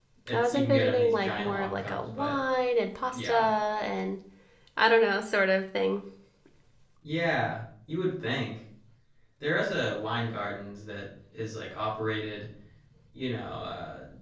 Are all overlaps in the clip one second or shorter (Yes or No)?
No